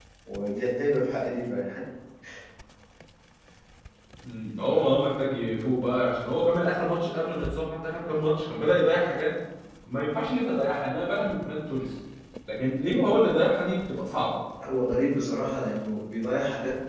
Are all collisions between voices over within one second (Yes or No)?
Yes